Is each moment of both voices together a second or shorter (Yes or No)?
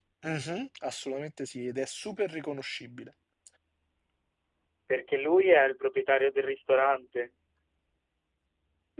Yes